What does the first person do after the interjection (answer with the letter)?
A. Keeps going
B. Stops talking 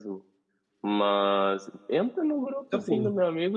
A